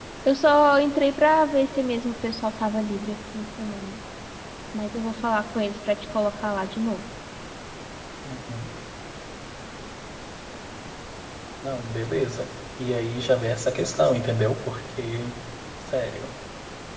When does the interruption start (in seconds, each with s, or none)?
none